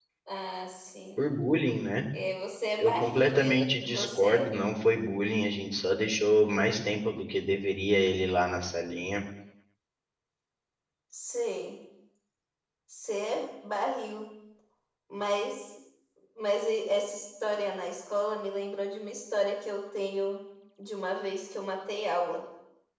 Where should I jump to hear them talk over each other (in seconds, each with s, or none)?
2.8 s